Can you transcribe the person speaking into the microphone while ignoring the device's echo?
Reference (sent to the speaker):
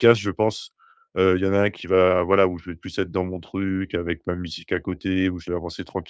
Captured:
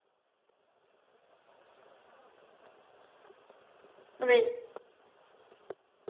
Oui.

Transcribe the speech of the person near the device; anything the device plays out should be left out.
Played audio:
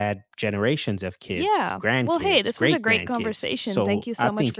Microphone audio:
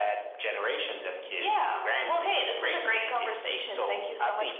none

